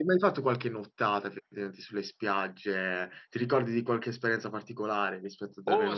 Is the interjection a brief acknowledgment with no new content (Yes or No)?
No